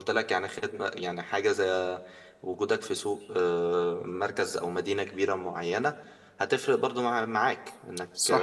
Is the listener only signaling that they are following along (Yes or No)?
Yes